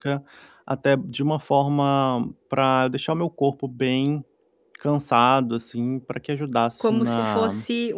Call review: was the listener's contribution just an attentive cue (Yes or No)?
No